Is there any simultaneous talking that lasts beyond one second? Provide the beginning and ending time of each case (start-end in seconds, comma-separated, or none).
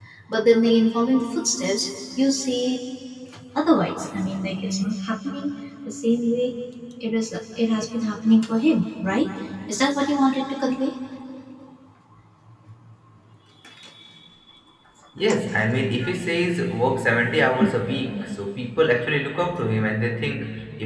none